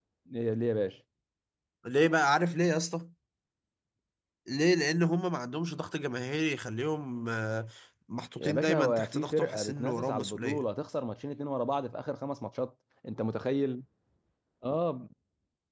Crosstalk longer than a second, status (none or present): present